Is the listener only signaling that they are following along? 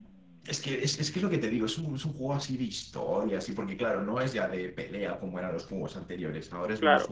Yes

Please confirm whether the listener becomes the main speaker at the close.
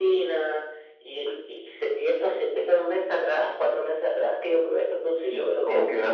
Yes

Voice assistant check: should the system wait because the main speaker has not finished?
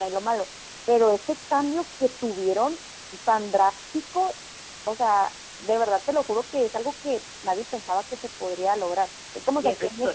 Yes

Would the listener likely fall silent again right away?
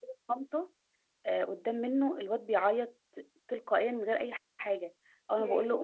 Yes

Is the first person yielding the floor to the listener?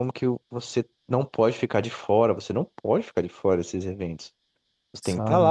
No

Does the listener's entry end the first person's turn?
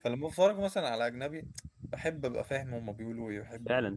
Yes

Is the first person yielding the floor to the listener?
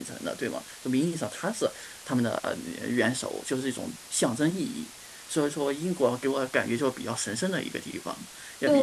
Yes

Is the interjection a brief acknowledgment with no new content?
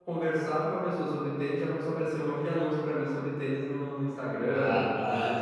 No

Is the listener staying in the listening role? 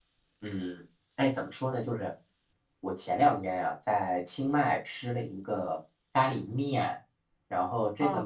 Yes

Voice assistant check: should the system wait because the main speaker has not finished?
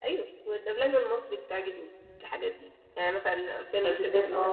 Yes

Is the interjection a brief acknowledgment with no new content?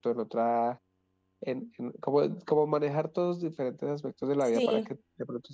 Yes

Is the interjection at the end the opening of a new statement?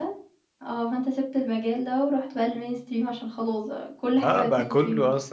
Yes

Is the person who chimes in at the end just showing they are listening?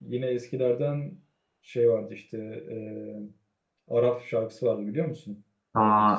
No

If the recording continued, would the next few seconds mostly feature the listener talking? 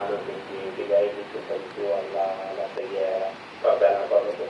No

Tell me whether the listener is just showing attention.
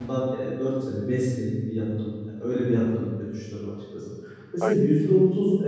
Yes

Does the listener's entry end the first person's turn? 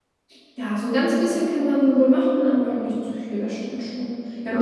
No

